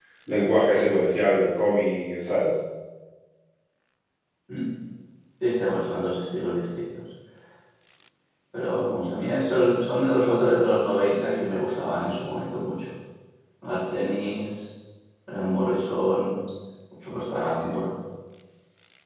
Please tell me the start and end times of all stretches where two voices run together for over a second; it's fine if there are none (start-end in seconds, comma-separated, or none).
none